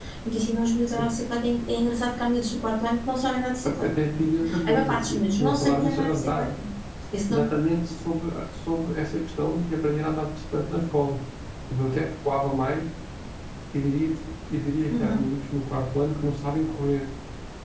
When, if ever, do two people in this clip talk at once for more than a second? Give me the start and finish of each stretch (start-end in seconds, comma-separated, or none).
4.7-6.5